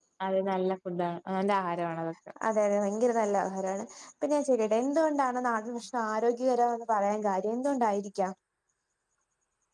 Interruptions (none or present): none